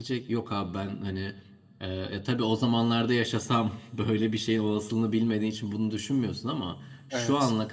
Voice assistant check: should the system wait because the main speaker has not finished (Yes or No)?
Yes